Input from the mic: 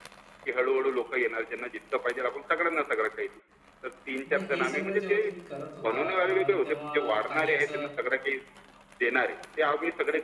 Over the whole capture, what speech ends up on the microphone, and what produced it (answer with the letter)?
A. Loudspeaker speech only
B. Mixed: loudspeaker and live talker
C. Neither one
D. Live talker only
B